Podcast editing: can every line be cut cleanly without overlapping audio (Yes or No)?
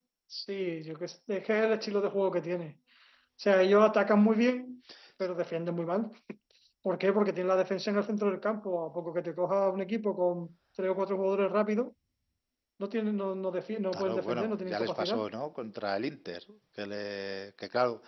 No